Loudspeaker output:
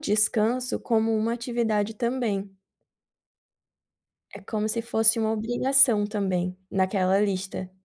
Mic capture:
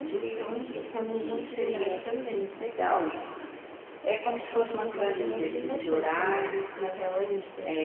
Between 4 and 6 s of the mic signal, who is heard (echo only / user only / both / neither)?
both